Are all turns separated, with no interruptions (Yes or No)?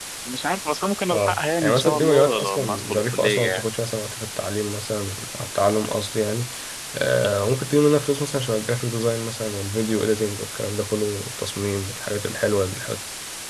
No